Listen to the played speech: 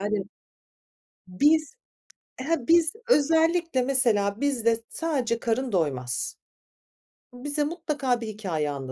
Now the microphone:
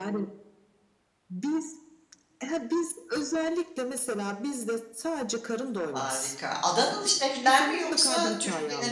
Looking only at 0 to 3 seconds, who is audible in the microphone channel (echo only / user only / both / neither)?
echo only